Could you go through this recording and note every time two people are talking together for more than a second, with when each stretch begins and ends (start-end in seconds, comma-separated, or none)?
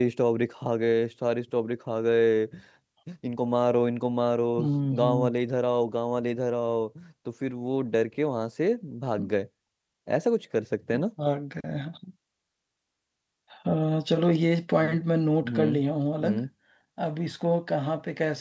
none